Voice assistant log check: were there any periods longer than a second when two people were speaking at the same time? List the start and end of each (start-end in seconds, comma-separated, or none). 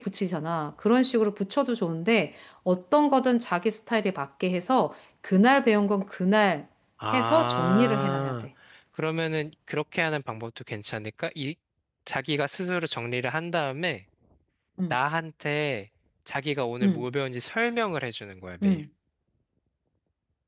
7.1-8.3